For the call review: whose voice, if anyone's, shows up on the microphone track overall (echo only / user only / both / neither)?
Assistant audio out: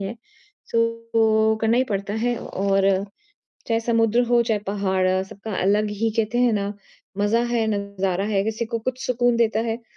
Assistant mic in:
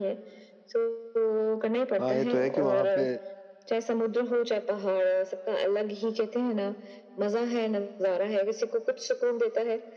both